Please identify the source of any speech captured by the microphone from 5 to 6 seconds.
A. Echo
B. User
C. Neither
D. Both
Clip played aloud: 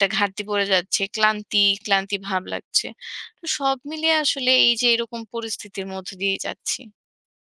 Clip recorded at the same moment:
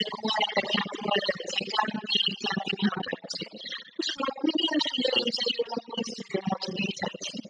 A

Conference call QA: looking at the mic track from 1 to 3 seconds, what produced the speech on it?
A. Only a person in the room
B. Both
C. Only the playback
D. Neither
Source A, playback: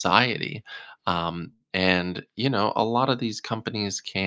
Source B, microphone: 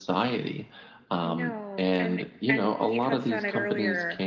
B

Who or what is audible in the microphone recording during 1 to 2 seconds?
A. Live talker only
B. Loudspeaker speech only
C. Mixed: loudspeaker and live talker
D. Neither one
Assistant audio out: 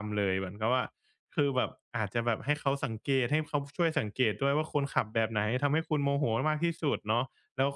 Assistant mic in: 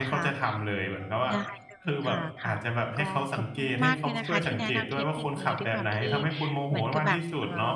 C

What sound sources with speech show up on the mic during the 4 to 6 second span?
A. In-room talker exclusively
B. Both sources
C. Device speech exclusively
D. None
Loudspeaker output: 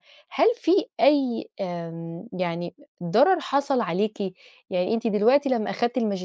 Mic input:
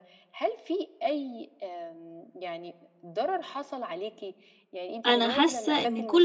B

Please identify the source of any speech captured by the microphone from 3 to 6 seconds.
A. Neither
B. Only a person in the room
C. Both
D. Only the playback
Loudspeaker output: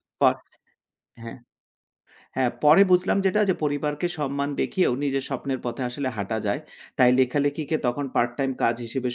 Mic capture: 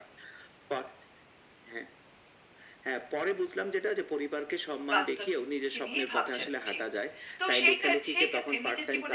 C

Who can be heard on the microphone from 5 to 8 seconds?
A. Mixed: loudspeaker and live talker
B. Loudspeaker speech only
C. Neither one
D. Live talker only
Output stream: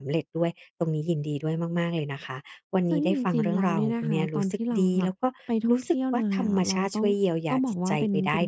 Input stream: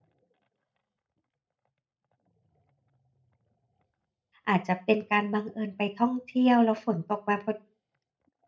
D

